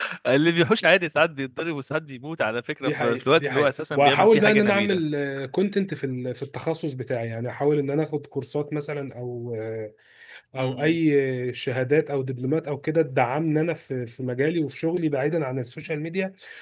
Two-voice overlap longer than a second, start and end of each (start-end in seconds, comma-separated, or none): 2.8-5.0